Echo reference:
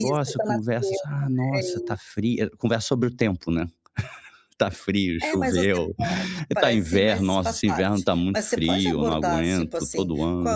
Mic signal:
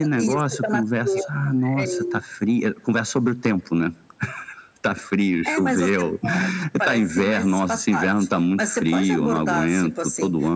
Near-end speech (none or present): none